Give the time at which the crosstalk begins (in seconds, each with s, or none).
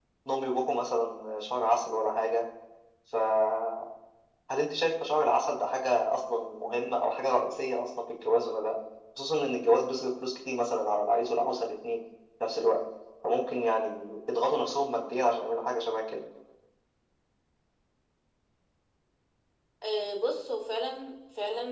none